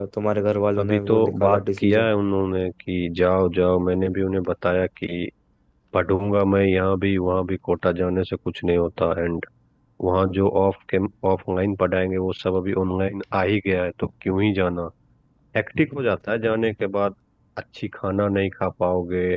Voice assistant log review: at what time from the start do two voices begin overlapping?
0.8 s

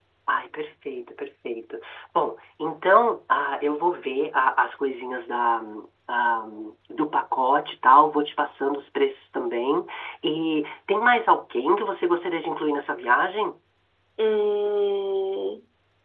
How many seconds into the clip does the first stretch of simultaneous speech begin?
none

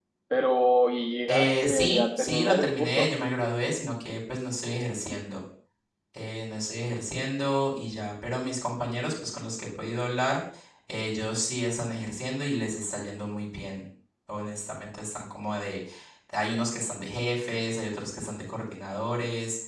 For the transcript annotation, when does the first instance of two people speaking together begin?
1.3 s

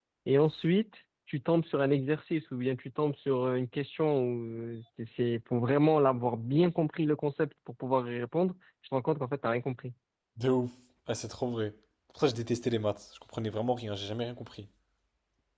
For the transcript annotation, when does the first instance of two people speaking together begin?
none

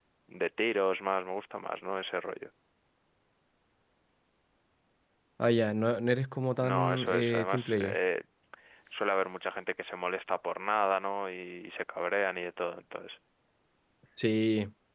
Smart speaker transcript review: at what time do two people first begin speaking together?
6.6 s

